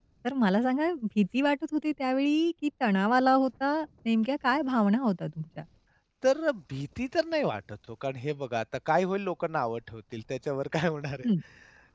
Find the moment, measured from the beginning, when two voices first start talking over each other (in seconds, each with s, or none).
none